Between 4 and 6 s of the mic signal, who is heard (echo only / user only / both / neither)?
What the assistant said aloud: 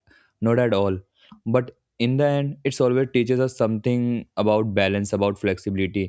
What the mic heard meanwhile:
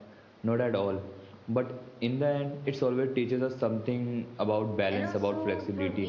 both